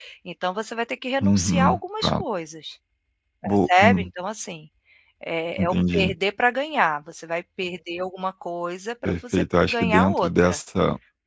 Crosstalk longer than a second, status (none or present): present